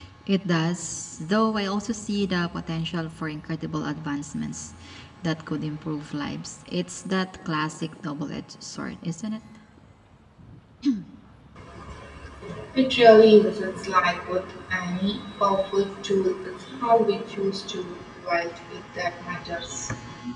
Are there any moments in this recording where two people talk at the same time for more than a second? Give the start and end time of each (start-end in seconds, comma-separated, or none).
none